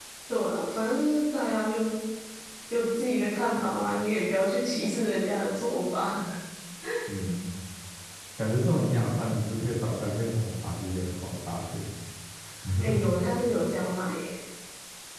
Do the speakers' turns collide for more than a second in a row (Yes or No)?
No